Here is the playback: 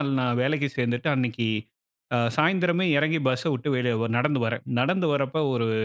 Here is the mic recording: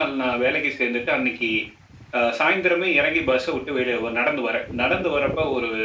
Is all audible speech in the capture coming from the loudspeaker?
Yes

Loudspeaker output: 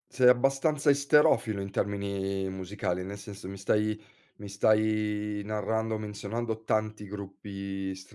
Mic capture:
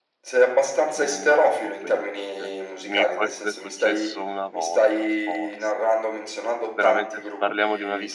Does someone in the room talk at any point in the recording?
Yes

